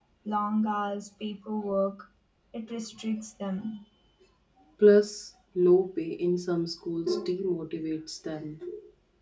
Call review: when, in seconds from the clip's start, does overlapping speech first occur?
none

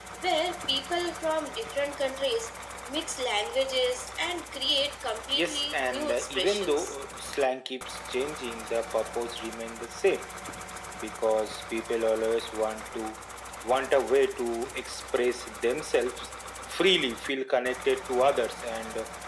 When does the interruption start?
5.3 s

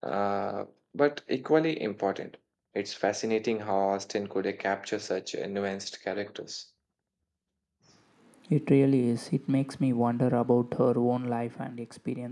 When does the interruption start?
none

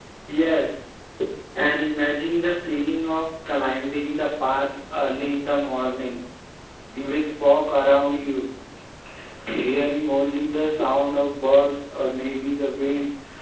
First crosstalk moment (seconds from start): none

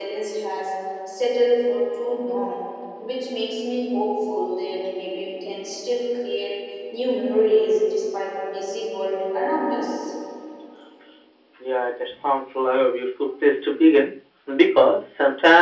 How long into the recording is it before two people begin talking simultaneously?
none

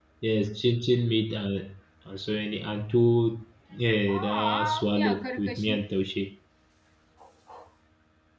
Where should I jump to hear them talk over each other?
4.1 s

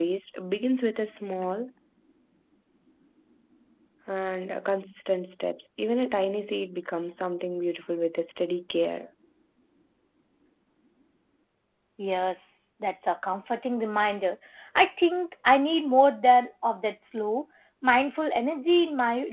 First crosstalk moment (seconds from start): none

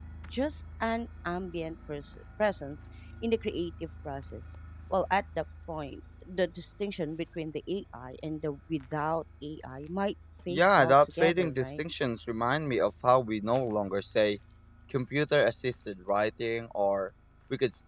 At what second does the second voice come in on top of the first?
10.5 s

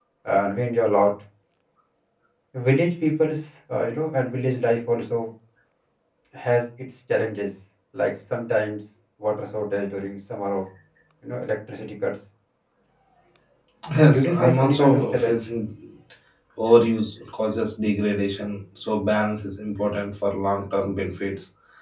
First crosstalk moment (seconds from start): 14.1 s

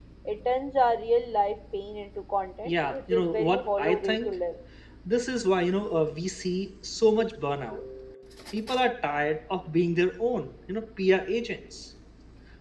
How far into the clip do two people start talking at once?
2.6 s

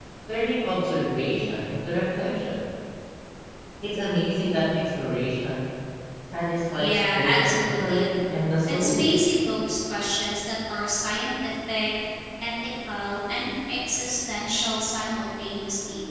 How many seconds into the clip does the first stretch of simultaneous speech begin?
6.8 s

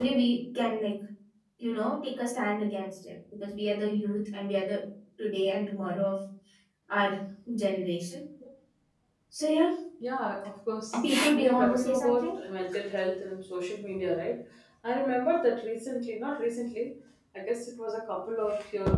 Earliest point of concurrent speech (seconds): 10.9 s

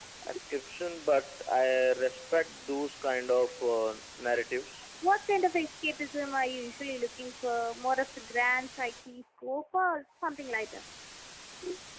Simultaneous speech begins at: none

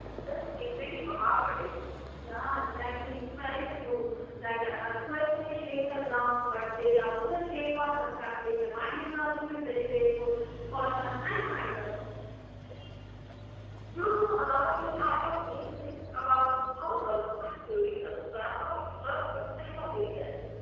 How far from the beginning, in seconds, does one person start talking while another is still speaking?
none

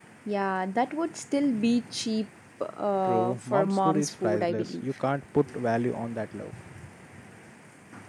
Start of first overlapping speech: 3.0 s

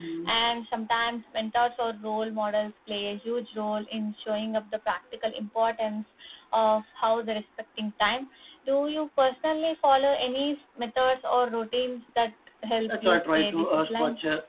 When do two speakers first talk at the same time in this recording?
12.8 s

